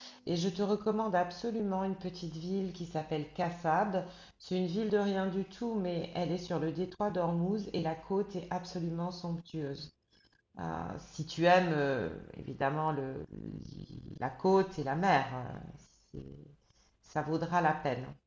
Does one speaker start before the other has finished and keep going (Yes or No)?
No